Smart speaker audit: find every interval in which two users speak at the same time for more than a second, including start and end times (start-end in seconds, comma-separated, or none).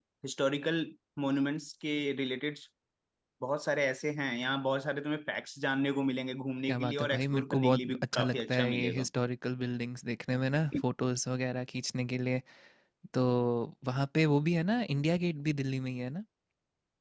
6.7-9.1